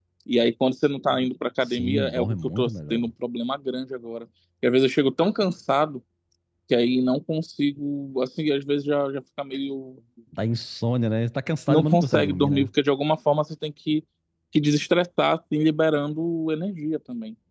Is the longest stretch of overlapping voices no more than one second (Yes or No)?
No